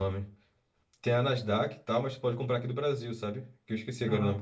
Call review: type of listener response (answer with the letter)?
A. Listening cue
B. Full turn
B